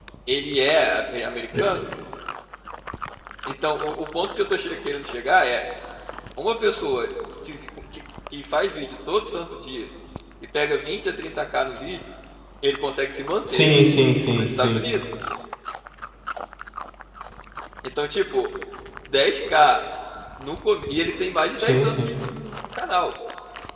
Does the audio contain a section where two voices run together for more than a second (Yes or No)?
No